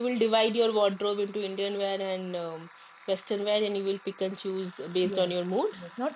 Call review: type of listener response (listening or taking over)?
taking over